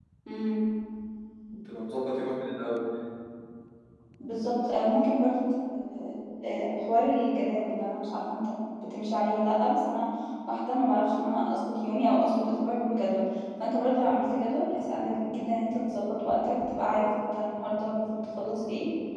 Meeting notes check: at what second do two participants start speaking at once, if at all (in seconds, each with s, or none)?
none